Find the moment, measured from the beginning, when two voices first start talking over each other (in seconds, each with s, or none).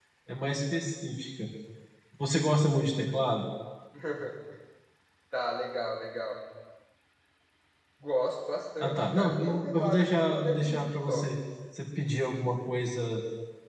8.8 s